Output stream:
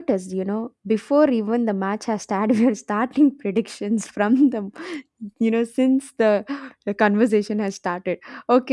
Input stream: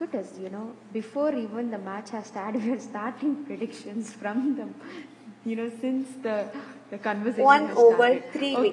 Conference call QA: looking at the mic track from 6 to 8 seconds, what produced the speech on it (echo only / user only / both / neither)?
both